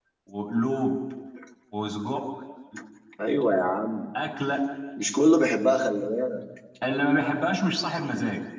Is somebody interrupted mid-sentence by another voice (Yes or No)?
No